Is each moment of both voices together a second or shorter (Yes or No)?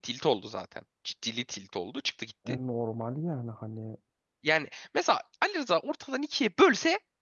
Yes